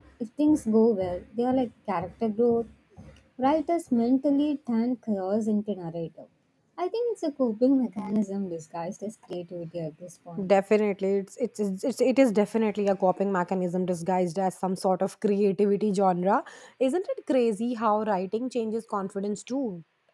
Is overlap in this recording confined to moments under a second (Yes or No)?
Yes